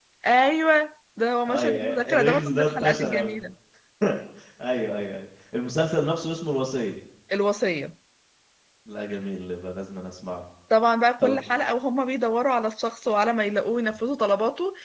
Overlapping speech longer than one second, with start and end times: 1.5-3.4

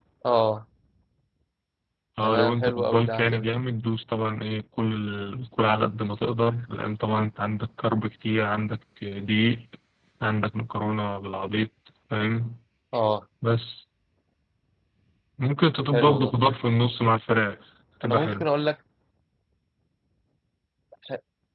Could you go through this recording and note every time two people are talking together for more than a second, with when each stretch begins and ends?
2.2-3.6

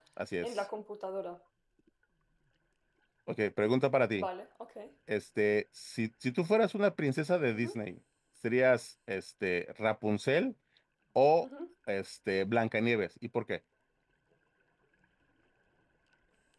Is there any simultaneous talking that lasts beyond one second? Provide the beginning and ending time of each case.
none

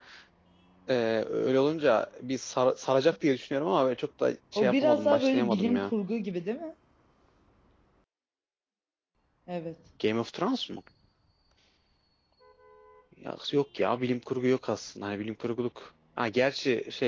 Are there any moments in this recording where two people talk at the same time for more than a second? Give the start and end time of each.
4.6-5.9

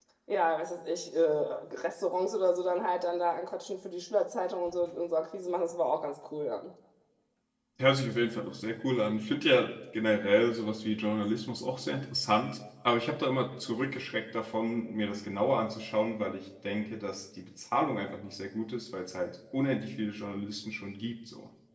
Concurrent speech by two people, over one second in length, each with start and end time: none

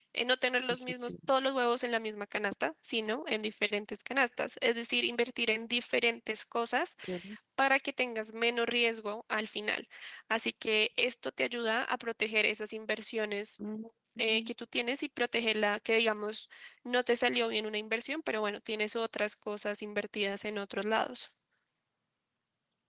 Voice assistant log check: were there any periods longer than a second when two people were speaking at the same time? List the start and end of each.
none

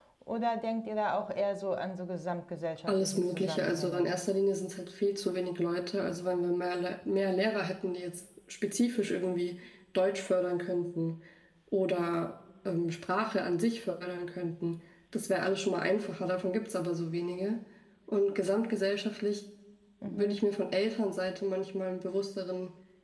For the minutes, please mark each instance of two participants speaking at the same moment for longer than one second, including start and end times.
2.9-4.1

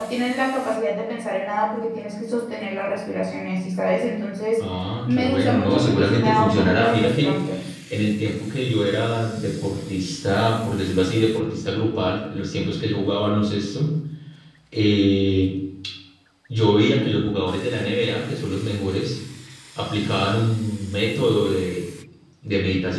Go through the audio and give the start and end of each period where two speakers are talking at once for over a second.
5.1-7.3

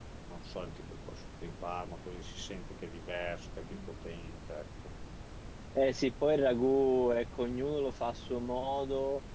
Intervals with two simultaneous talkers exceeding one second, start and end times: none

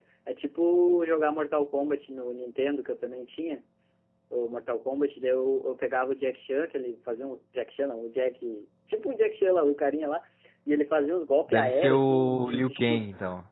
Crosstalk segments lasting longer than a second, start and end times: 11.5-13.0

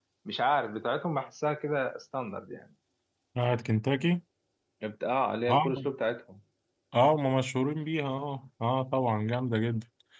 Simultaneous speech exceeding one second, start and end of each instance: none

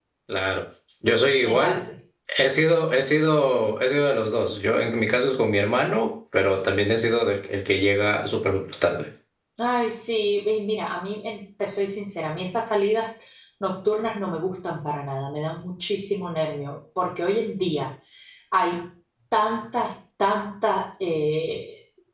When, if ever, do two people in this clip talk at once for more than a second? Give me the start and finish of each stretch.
none

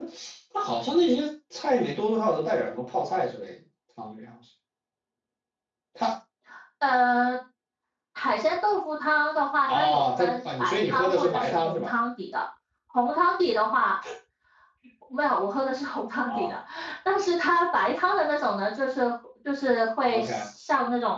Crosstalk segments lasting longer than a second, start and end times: 9.7-11.9

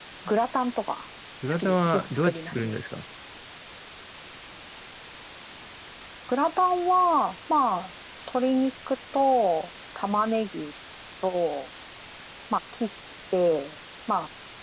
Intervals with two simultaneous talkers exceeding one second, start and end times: 1.5-2.8

